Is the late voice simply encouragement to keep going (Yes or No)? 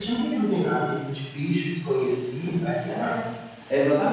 No